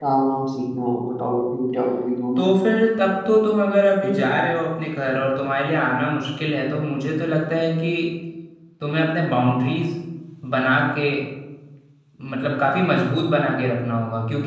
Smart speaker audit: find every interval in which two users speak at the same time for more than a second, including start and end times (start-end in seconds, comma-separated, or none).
none